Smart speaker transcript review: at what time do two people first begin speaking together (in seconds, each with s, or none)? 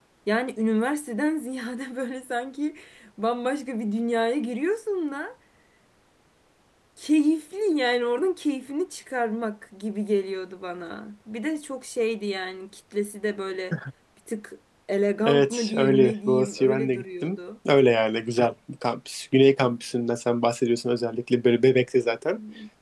15.2 s